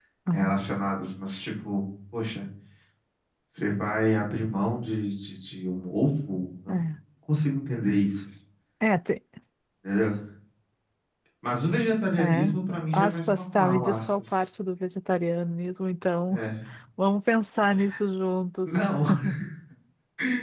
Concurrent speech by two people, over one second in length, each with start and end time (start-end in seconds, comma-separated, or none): 13.0-14.4